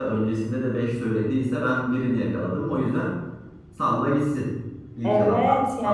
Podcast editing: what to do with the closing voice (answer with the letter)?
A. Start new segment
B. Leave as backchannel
A